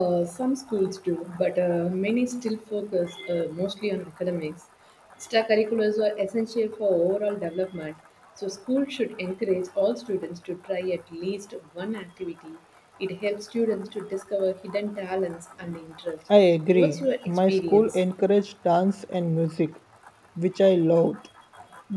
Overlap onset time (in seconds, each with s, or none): 16.7 s